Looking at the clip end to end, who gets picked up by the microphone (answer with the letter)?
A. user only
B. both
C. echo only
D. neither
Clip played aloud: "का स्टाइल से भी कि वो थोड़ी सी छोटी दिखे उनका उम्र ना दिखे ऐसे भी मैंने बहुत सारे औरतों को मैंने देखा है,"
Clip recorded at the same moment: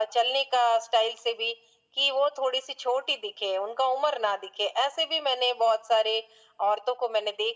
C